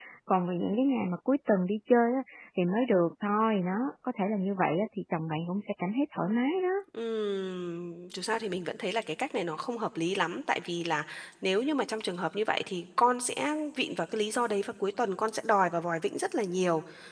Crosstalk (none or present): none